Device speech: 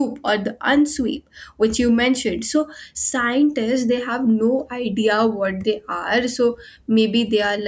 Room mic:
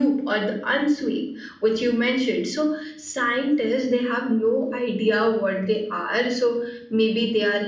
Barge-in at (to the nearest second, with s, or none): none